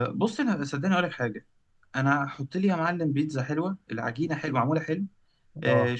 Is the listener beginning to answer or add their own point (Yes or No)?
No